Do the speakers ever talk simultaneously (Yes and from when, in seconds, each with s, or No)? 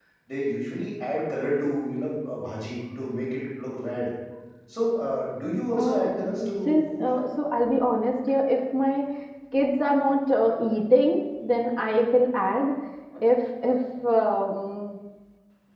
Yes, from 5.8 s